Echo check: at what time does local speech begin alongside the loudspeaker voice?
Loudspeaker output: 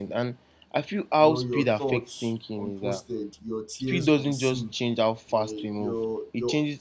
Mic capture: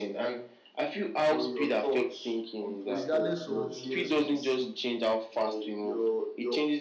3 s

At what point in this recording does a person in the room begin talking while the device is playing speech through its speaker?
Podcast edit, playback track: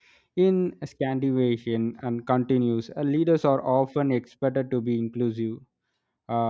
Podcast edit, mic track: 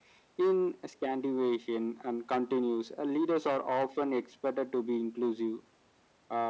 none

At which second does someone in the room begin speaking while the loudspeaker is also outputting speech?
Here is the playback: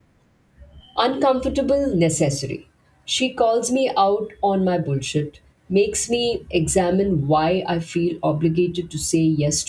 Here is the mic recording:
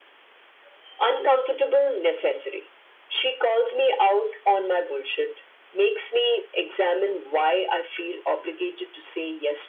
none

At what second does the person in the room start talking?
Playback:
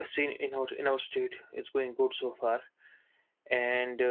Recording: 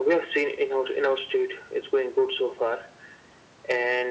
none

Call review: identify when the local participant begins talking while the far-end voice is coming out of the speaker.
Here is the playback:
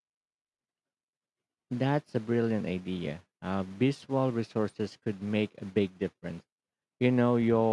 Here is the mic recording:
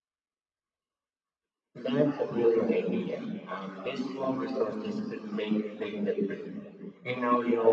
none

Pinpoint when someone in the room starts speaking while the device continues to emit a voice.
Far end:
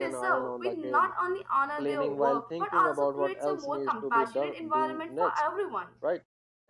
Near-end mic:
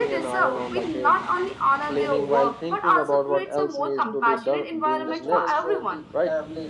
5 s

